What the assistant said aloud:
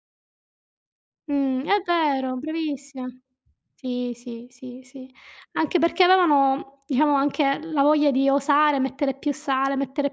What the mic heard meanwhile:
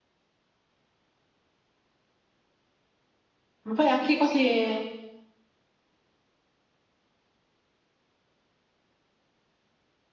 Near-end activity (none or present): present